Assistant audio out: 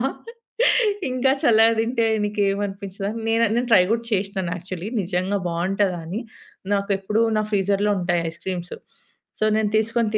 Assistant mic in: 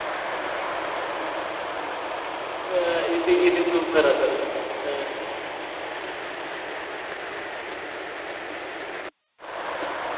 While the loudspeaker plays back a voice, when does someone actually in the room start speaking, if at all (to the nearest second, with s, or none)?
3 s